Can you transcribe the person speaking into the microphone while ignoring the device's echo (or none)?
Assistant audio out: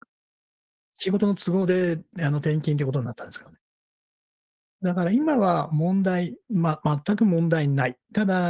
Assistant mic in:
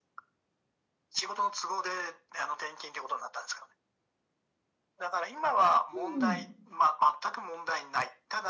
うんうん。